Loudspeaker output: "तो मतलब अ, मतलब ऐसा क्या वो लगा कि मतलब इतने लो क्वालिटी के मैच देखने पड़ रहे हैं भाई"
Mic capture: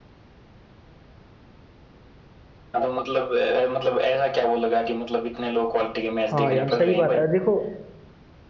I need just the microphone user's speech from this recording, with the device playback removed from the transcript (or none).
हाँ यार सही बात है देखो